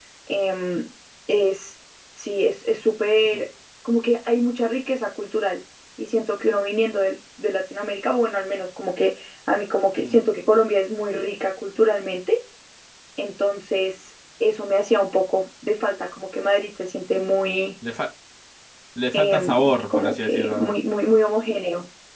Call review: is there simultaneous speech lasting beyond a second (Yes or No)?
Yes